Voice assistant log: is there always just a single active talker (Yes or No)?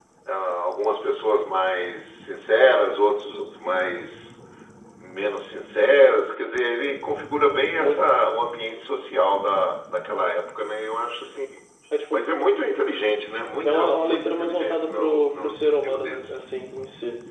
No